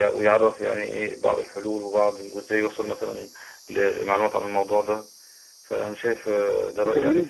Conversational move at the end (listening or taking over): taking over